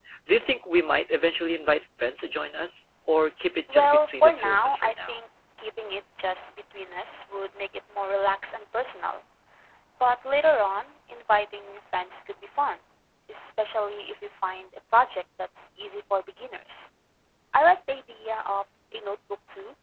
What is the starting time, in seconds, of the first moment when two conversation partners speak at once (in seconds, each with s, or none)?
3.7 s